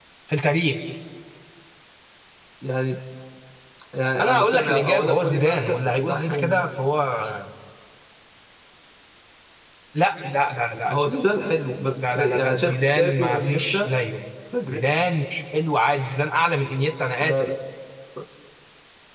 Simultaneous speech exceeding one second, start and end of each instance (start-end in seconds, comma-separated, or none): 4.2-6.7, 12.0-13.9